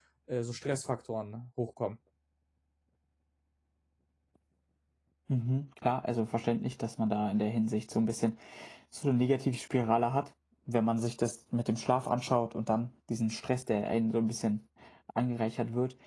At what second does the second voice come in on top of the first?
none

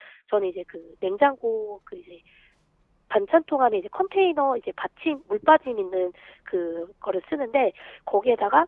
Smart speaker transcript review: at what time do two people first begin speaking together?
none

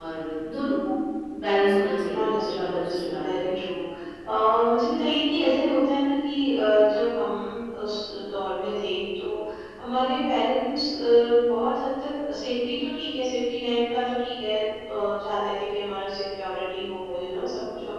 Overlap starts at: 2.2 s

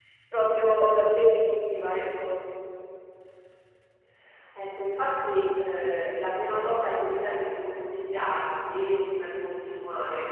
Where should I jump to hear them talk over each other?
none

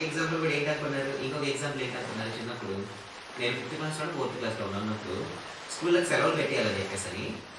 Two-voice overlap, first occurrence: none

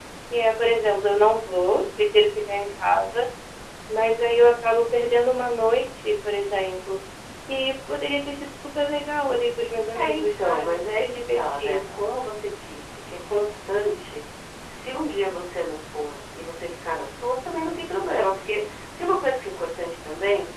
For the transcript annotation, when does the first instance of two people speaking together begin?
9.9 s

